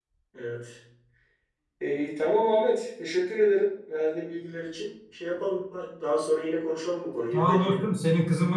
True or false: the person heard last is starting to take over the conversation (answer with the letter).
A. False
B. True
B